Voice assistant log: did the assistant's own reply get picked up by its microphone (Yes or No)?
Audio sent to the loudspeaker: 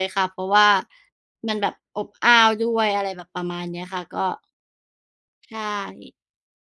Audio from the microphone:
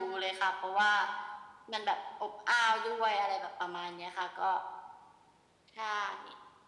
Yes